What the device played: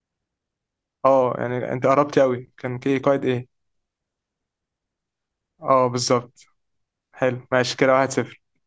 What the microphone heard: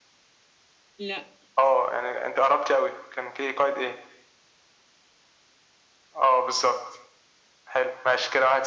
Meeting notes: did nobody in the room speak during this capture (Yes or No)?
No